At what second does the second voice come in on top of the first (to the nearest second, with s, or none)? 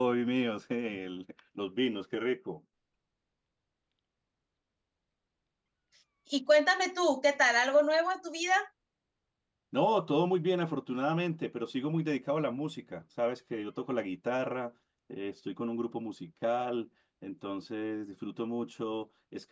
none